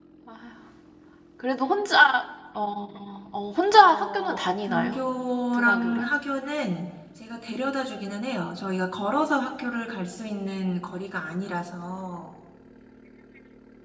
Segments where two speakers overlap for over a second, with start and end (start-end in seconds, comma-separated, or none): 3.7-5.0